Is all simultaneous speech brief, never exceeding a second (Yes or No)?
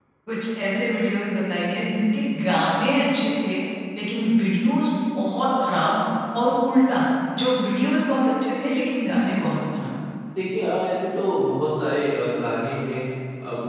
Yes